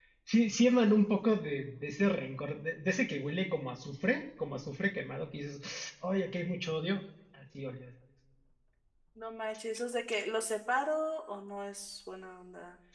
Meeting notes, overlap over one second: none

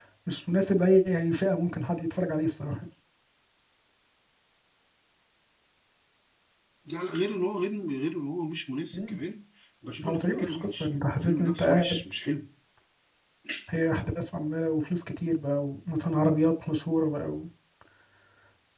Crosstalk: present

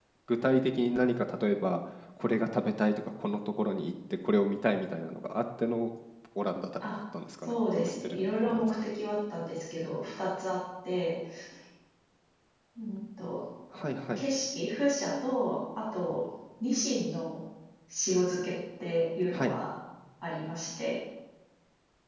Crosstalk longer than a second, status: present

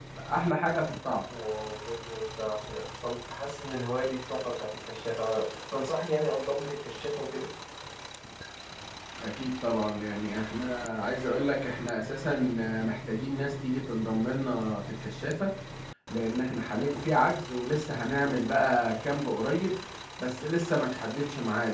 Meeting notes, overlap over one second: none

